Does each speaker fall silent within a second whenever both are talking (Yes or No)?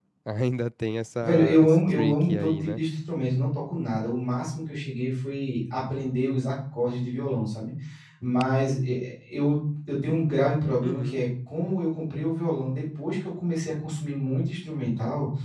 No